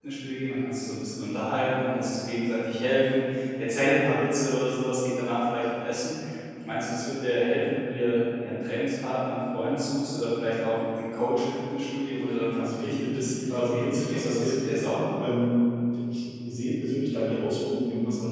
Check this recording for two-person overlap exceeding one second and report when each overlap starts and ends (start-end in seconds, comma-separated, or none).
12.6-15.0